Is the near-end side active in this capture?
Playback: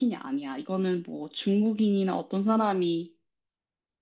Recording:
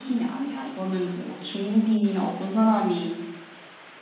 No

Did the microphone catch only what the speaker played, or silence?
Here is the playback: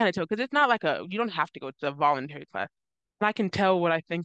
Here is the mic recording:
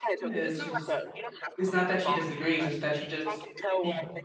No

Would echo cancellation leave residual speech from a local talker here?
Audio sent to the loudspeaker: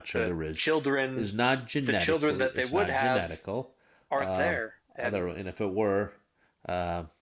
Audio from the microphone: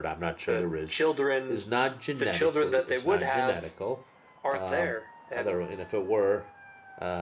No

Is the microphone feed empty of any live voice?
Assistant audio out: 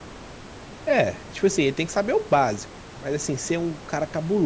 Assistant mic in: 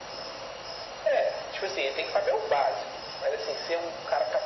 Yes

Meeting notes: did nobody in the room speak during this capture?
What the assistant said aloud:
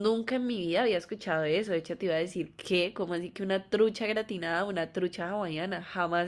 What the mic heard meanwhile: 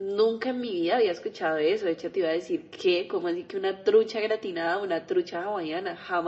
Yes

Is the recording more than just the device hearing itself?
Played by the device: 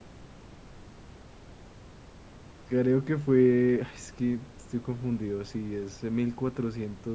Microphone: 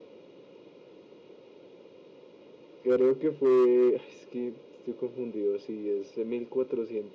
No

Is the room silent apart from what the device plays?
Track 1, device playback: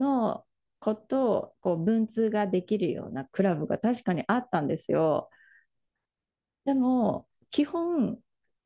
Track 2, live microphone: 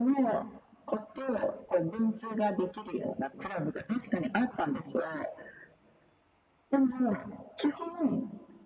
Yes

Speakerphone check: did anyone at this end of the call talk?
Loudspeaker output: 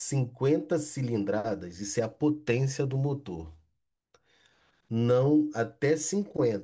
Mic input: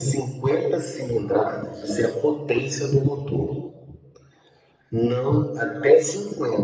No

